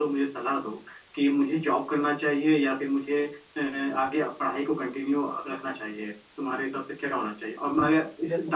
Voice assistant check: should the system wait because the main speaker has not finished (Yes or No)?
Yes